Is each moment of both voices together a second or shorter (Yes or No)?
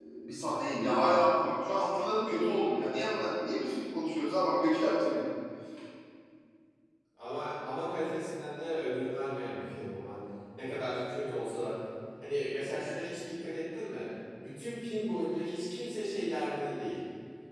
Yes